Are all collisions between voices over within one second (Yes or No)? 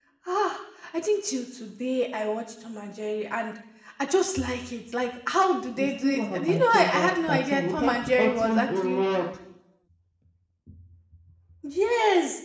No